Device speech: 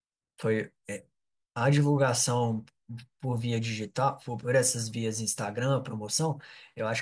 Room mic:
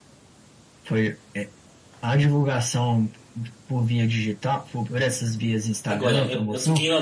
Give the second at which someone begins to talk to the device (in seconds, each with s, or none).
5.8 s